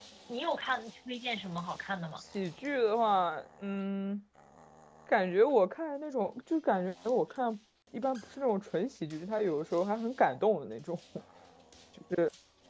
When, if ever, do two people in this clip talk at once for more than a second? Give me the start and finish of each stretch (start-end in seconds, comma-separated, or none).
none